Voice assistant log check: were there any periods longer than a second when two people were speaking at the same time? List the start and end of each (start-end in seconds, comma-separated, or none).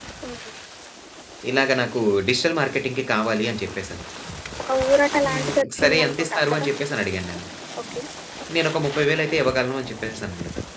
5.2-6.7